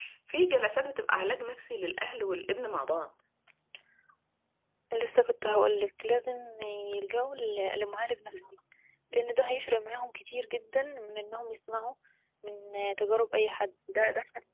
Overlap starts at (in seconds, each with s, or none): none